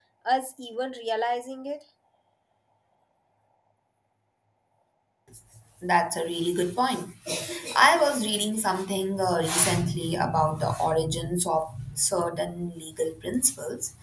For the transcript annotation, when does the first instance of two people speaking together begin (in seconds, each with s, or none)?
none